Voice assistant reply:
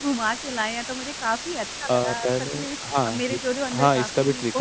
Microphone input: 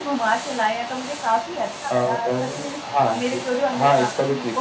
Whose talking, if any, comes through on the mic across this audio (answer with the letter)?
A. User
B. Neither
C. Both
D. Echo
D